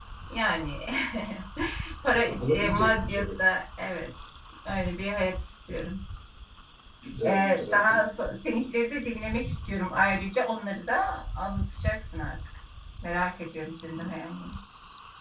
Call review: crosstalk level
present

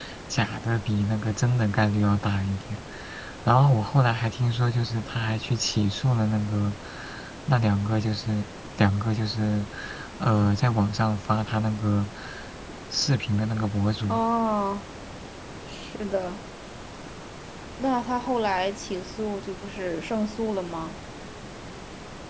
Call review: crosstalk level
none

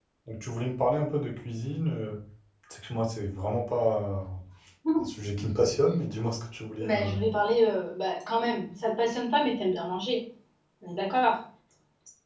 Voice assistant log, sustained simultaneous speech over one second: none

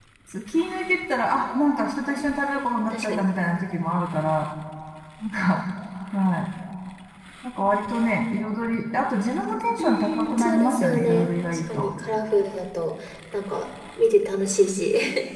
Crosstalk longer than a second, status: present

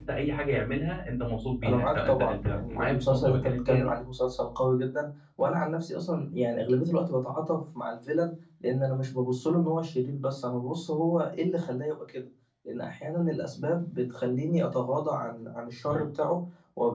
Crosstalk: present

